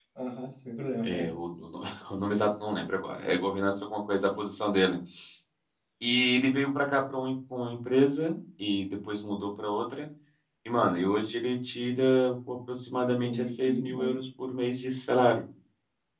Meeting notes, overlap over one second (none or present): present